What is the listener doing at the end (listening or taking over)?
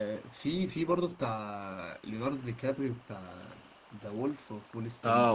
taking over